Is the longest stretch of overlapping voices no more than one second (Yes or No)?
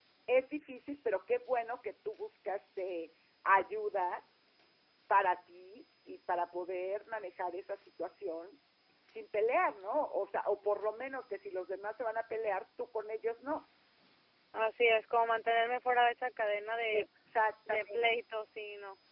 Yes